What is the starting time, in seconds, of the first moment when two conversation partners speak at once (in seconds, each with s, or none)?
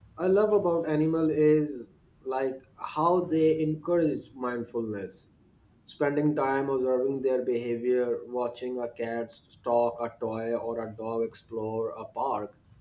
none